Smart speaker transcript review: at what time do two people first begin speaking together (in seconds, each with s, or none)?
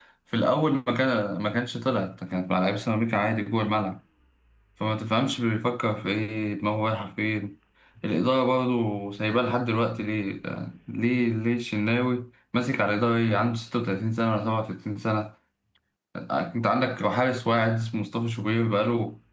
none